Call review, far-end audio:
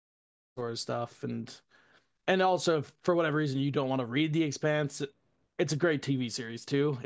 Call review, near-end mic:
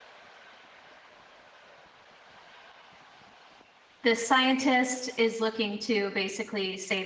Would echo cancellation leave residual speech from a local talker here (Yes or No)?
Yes